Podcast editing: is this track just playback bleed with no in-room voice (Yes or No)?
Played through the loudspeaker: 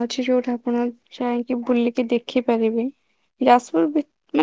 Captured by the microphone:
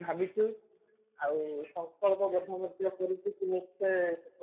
No